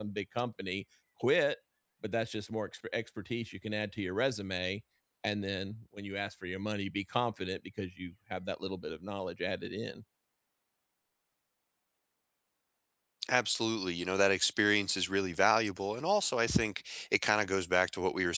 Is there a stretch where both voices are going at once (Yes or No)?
No